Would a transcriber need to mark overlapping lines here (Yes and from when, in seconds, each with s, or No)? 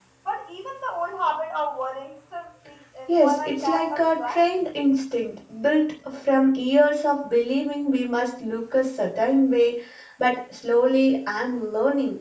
Yes, from 3.1 s